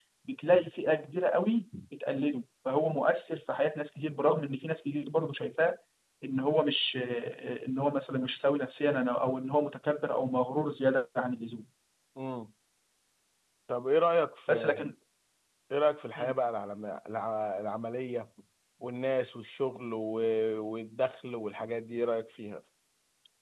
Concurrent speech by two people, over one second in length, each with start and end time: none

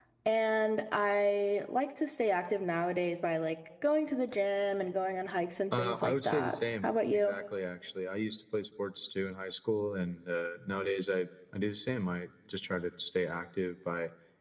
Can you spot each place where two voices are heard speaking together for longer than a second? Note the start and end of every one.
5.7-7.4

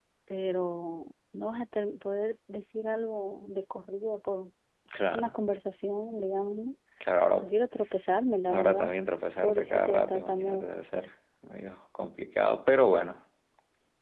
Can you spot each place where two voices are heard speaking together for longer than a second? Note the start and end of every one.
9.4-10.7

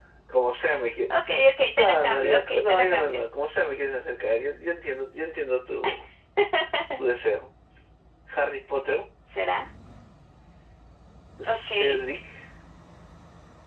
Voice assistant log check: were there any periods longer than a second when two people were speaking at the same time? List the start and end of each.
1.8-3.2

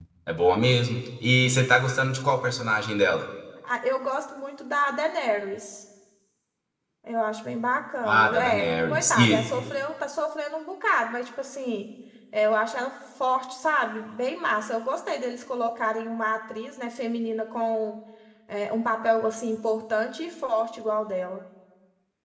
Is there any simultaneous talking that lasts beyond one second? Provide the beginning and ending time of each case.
8.0-9.4

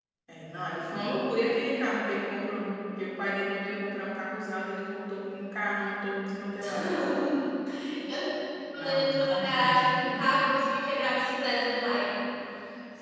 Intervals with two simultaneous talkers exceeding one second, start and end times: 8.7-10.3

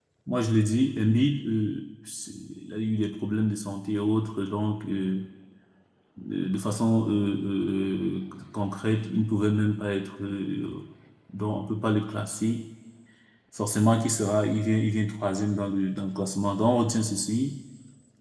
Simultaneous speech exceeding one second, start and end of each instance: none

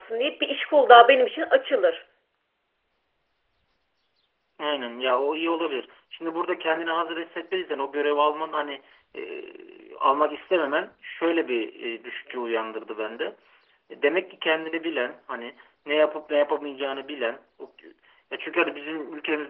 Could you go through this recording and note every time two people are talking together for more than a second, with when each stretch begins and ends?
none

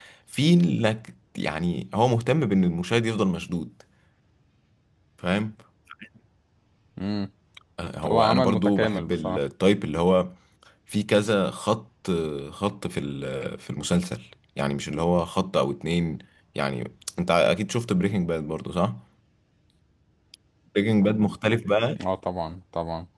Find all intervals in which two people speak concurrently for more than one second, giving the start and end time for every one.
8.1-9.4

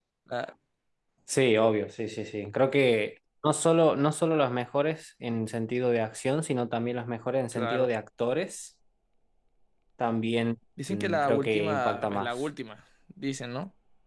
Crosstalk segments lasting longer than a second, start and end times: 10.9-12.3

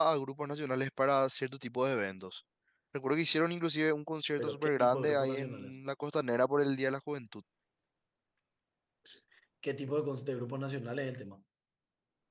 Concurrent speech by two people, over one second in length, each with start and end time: 4.4-5.8

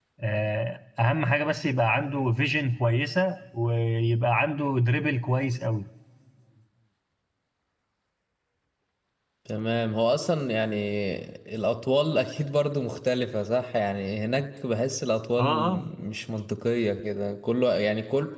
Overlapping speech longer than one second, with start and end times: none

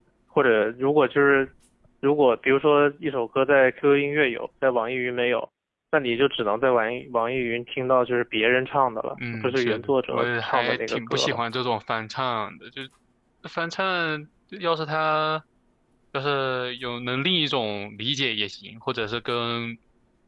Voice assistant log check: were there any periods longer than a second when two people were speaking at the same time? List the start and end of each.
9.3-11.4

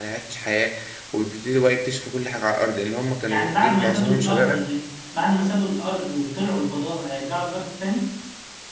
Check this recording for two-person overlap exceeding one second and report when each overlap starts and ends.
3.3-4.5

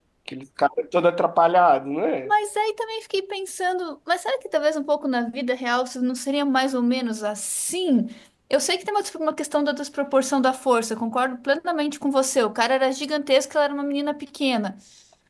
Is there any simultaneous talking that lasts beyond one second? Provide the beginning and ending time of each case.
none

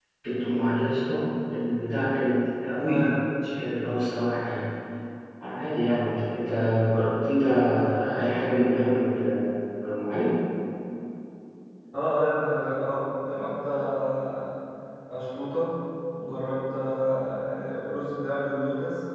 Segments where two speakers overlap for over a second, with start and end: none

